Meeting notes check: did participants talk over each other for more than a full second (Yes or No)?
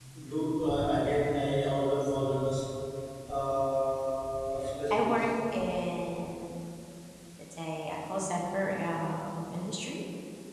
No